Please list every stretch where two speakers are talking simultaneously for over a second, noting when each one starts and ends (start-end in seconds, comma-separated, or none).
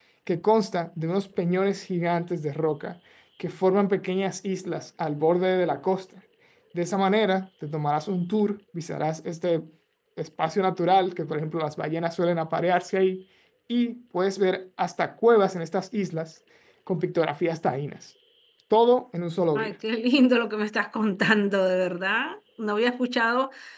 none